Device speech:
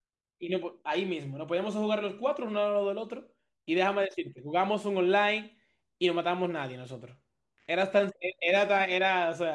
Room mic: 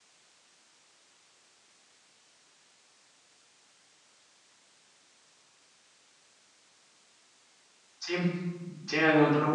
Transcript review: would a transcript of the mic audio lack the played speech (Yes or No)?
Yes